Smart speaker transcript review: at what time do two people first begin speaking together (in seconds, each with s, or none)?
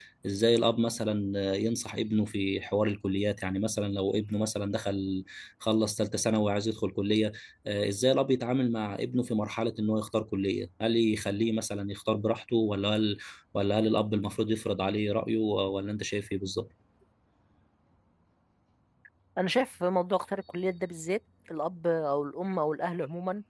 none